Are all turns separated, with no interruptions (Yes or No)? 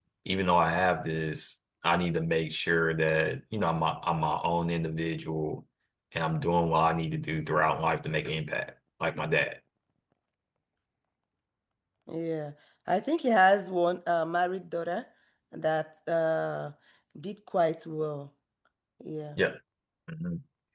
Yes